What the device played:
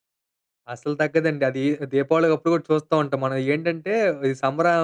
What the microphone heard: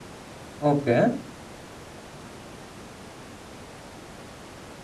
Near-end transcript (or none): ఓకే.